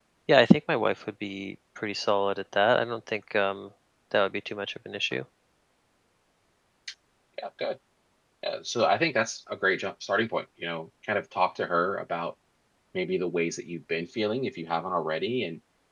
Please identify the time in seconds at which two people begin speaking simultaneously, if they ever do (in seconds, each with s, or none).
none